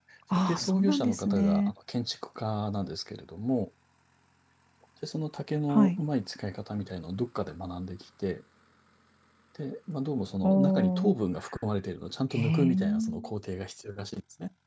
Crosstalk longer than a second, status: present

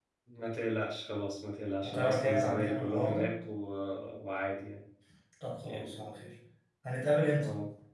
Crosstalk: present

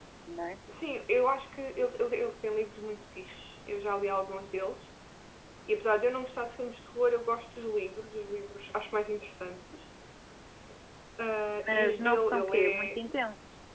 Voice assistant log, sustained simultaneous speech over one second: present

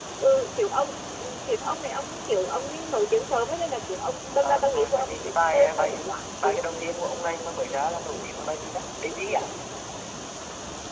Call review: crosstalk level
present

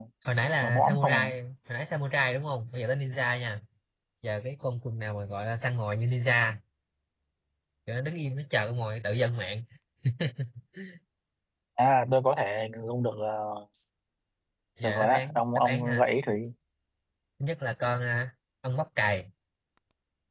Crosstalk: present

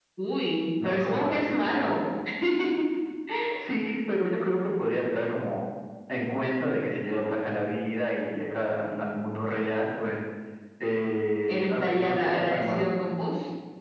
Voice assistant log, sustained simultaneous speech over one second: present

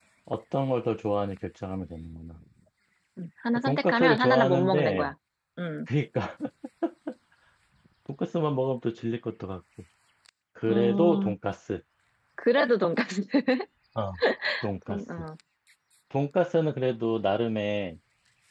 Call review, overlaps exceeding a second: present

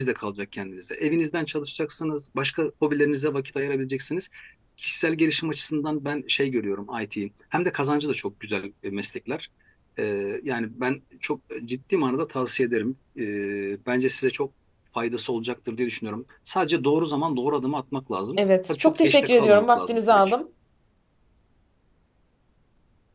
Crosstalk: present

